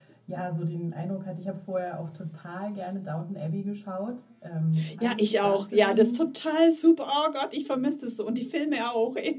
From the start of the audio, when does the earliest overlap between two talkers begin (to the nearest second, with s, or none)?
5 s